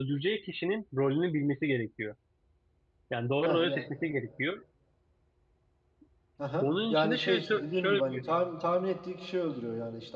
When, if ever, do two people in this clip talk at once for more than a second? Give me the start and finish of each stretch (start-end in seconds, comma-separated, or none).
6.6-8.3